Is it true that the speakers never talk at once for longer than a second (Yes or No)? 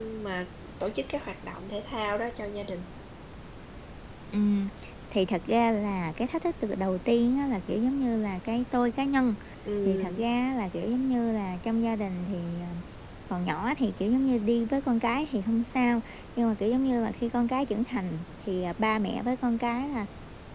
Yes